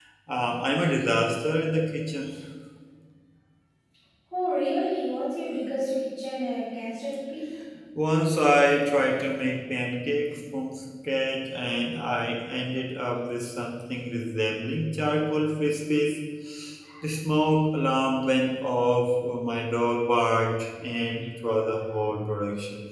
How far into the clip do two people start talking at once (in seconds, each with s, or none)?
none